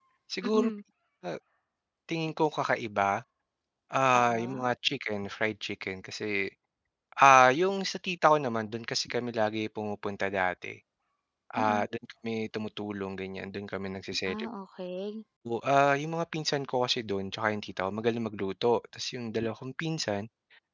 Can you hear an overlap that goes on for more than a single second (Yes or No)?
No